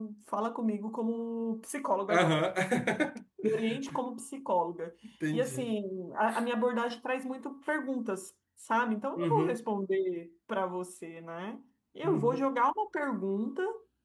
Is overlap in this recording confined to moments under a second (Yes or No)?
Yes